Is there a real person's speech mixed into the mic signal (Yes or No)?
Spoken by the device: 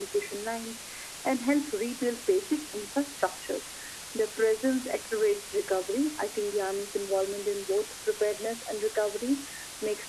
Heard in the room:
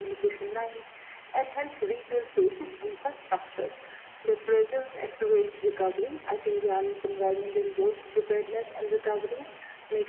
No